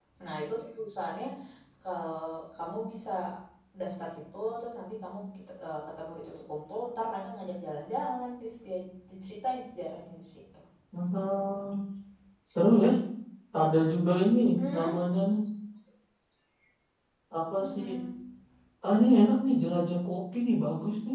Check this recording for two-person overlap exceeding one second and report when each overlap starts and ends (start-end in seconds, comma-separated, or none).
none